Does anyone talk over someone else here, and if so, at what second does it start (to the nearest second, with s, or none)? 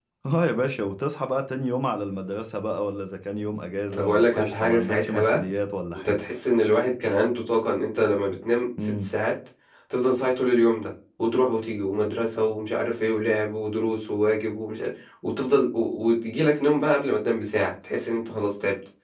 4 s